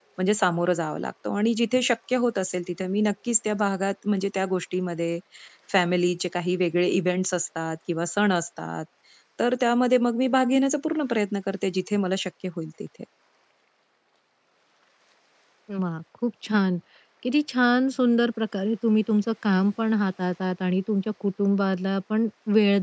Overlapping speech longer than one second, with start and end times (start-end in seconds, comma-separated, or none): none